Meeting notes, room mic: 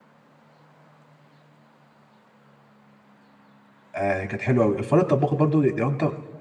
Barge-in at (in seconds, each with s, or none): 3.9 s